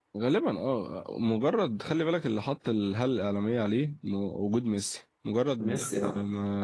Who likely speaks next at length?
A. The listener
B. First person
B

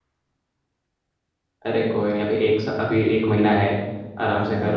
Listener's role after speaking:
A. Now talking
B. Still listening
B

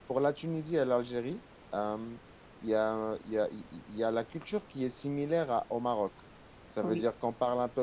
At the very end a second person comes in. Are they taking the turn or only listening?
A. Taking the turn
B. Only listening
B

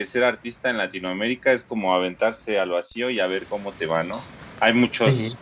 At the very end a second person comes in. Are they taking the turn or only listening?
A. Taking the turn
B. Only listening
B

